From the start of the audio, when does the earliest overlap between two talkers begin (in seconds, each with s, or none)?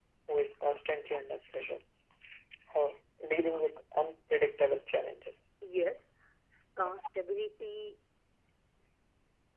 none